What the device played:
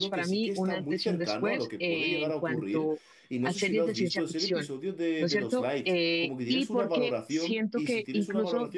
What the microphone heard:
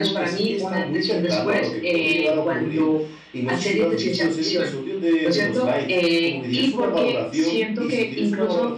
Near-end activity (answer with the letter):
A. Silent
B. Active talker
A